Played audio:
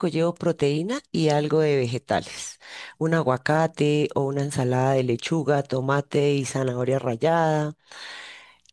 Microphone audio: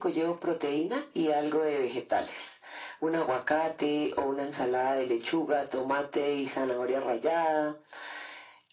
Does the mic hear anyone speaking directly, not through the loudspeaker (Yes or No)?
No